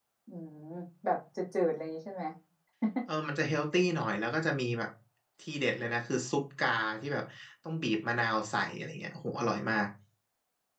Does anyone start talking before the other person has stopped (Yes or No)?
No